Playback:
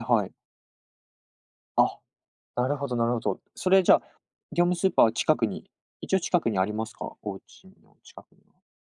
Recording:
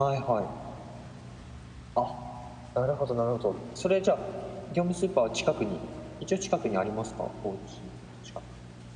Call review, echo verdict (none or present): present